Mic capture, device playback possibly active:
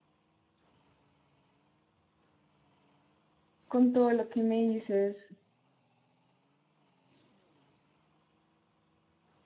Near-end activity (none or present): present